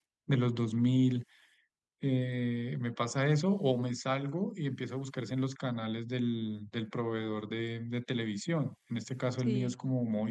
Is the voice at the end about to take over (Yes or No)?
No